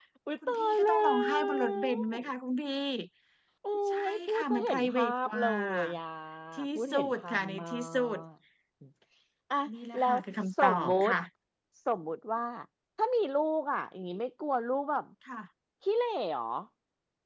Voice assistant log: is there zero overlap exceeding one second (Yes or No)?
No